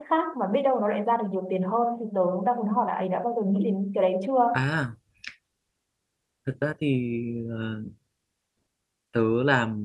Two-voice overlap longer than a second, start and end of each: none

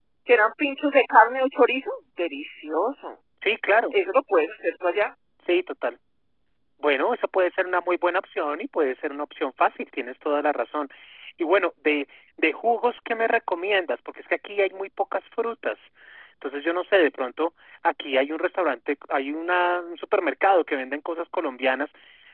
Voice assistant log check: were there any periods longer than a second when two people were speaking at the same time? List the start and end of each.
none

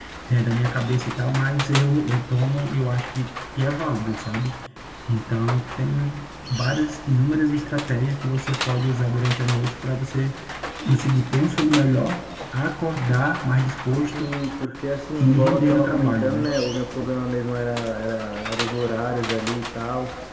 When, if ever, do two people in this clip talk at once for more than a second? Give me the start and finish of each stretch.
15.2-16.5

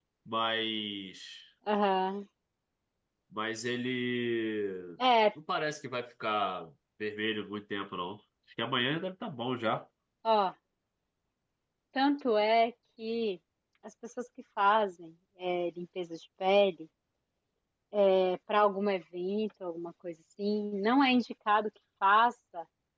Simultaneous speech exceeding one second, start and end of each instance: none

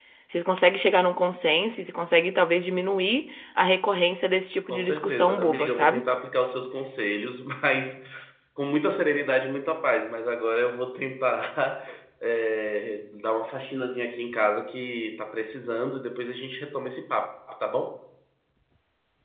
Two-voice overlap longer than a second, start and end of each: 4.7-6.0

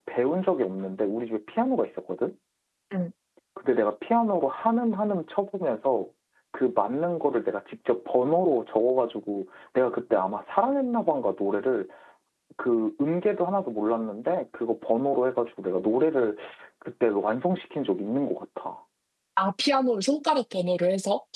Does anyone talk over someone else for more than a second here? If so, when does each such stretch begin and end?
none

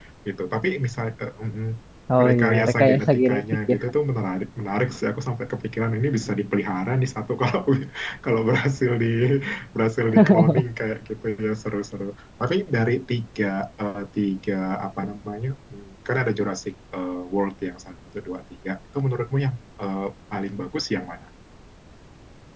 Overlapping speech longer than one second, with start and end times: 2.2-3.8

